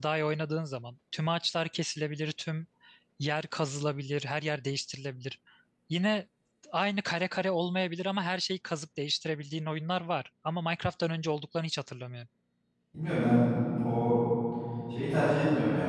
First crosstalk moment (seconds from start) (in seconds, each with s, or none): none